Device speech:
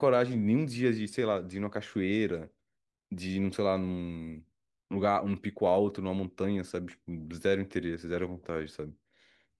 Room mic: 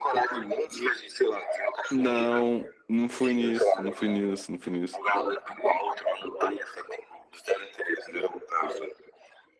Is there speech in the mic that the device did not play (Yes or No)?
Yes